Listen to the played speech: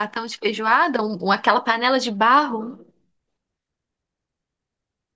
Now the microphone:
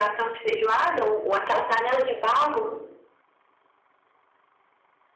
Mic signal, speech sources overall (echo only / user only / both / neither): echo only